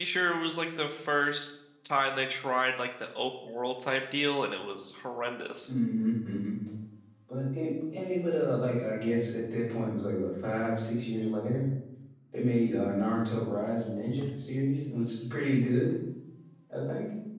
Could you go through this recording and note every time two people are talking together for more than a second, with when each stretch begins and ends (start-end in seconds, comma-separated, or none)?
none